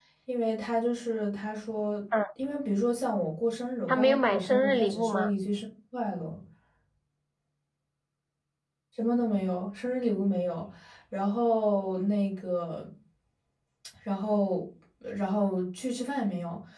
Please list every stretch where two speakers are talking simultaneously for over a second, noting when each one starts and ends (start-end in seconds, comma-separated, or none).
3.9-5.3